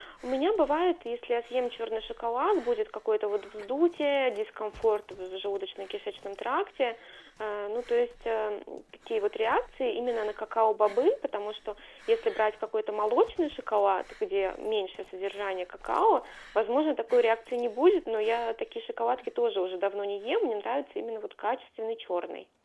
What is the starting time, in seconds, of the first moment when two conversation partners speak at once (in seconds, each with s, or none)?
none